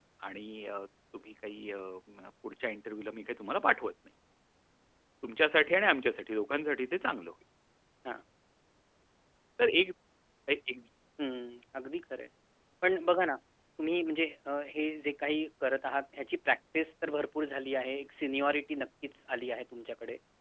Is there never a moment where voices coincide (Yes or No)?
Yes